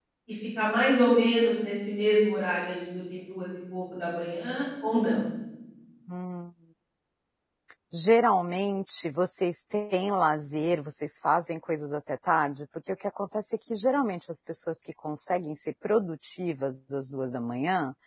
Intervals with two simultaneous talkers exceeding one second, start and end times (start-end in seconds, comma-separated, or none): none